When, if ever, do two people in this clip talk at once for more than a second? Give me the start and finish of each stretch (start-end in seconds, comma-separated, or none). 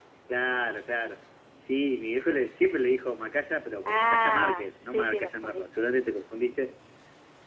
3.9-5.6